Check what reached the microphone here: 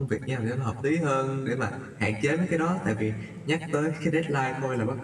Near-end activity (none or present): present